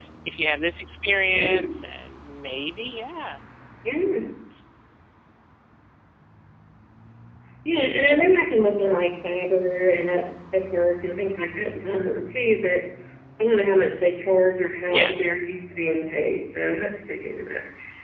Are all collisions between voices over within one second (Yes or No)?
Yes